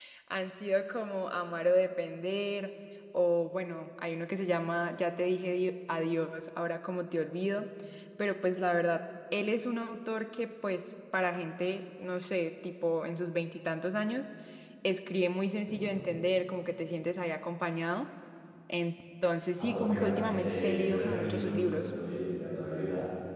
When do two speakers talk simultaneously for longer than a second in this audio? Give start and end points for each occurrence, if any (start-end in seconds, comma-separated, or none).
19.6-21.9